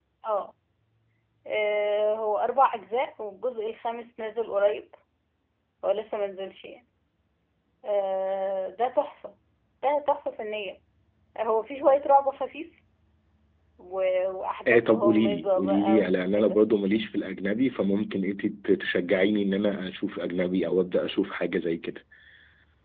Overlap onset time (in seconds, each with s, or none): 14.7 s